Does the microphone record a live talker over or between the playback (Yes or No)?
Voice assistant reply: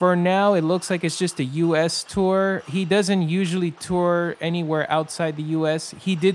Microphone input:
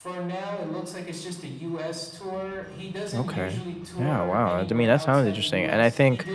Yes